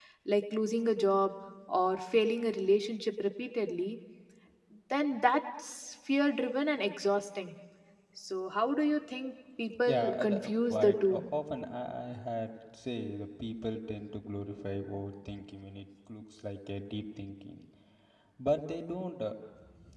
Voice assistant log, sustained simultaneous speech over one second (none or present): present